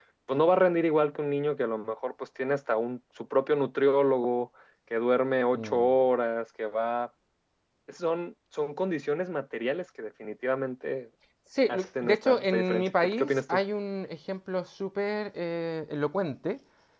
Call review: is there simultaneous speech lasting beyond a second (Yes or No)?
Yes